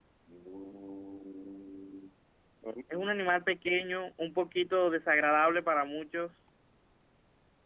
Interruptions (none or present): none